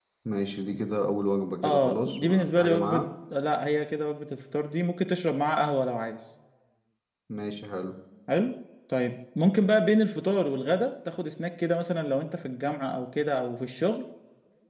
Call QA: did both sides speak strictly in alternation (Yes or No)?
No